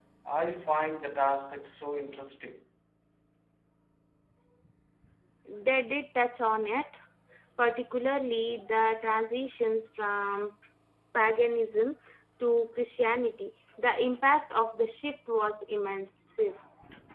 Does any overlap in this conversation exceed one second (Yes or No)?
No